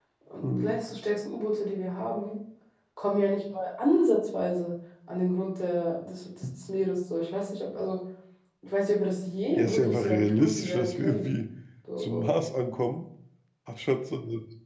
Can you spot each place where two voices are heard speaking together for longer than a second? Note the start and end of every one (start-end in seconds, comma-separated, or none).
9.6-11.3